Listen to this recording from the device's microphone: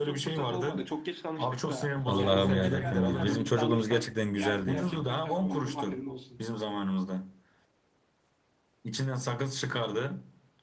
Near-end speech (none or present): present